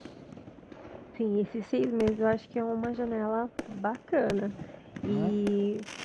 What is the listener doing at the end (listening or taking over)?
listening